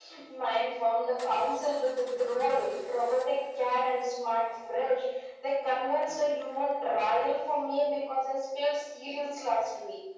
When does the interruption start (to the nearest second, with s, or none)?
none